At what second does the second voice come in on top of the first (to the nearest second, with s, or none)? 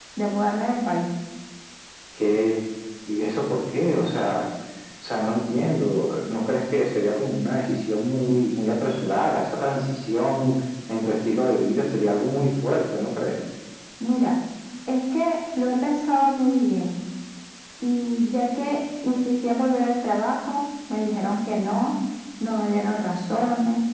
none